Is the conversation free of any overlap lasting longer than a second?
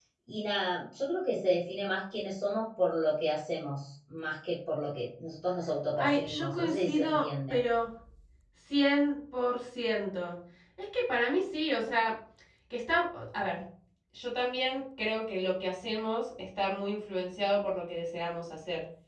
No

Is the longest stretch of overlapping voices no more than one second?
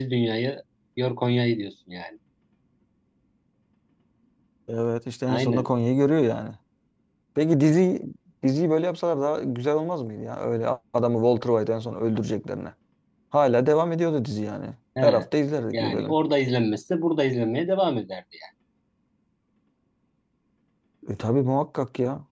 Yes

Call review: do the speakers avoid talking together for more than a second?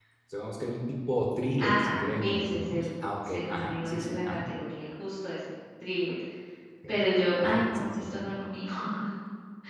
No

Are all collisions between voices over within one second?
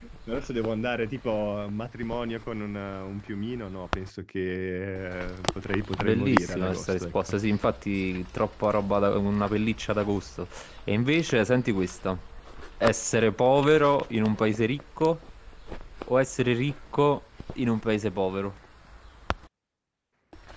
No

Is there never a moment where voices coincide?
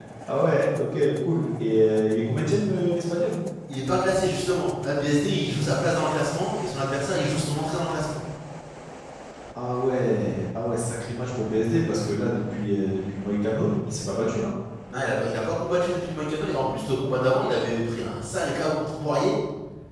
Yes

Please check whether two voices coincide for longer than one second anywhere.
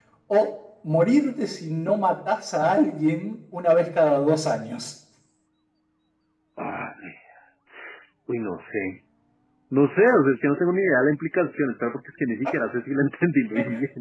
No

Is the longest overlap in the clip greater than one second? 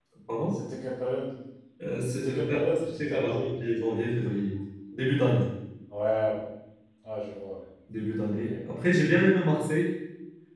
Yes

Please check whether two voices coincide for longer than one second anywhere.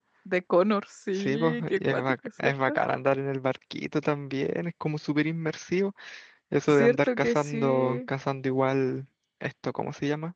Yes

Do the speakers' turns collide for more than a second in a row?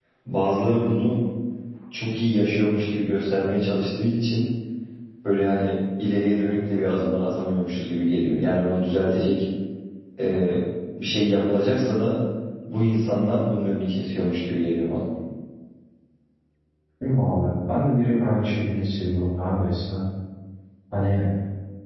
No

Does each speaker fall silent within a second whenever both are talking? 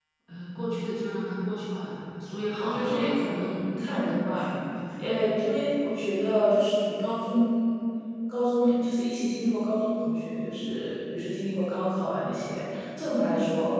No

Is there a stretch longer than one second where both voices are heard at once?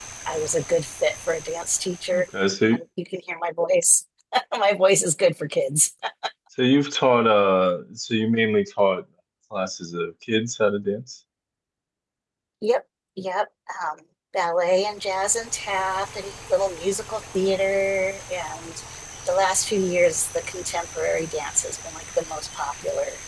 No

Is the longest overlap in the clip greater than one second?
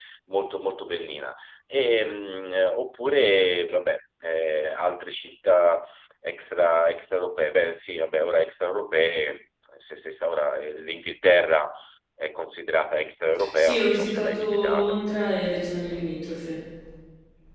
Yes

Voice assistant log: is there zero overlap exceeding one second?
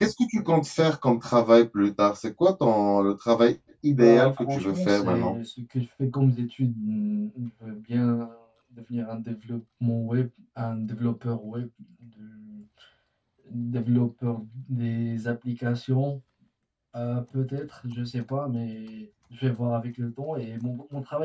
No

